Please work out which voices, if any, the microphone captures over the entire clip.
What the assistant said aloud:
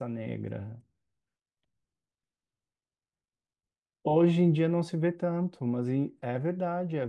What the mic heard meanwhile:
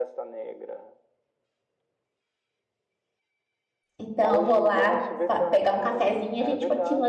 both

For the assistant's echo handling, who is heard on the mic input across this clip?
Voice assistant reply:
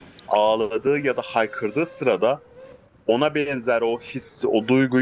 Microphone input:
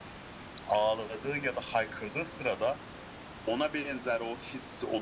echo only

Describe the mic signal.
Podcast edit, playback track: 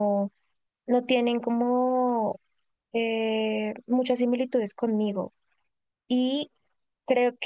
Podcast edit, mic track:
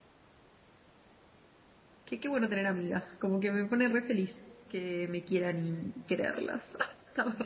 user only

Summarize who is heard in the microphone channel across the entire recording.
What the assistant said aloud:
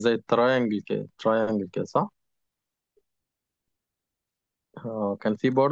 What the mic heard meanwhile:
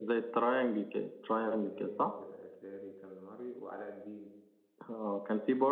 both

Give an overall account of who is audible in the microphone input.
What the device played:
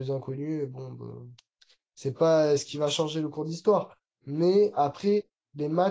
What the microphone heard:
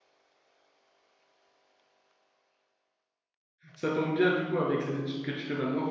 user only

